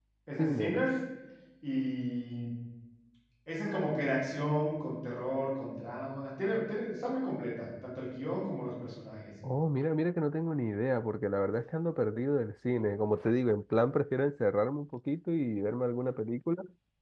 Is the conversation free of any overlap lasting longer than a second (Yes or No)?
Yes